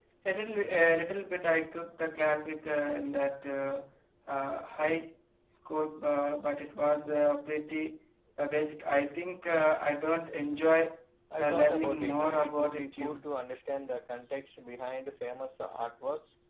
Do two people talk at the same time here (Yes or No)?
Yes